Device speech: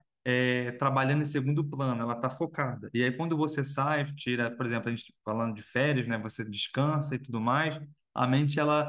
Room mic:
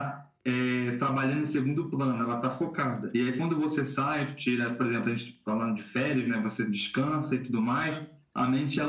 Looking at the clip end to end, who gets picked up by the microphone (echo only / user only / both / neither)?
echo only